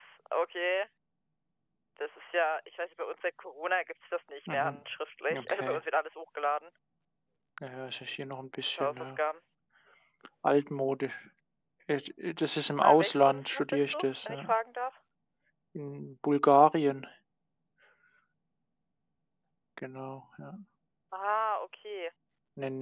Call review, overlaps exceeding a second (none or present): present